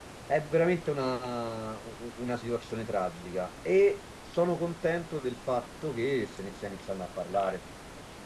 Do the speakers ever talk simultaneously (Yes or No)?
No